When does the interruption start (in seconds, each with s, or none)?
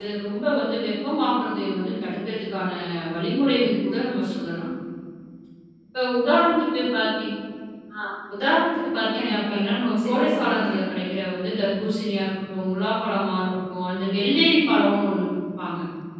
9.2 s